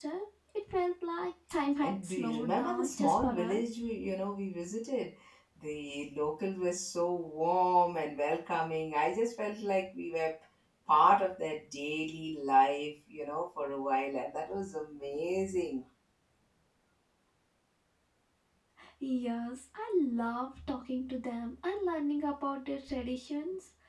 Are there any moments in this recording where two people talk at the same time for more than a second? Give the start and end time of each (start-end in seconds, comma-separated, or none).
1.8-3.6